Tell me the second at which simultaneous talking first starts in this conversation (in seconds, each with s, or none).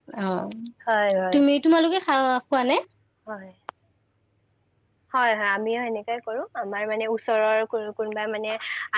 none